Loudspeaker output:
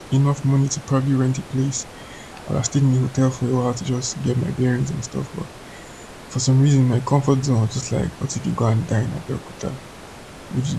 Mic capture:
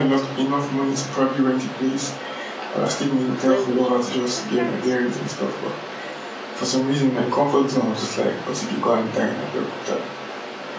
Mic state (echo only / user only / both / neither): both